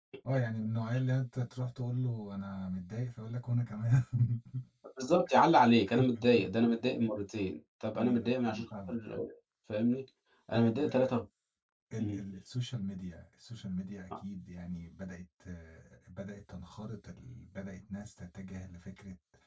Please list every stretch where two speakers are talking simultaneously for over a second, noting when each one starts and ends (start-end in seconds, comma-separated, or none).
7.9-9.2